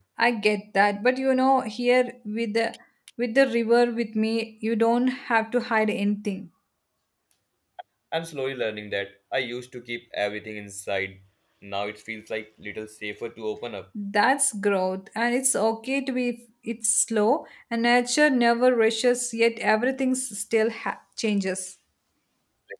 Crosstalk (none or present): none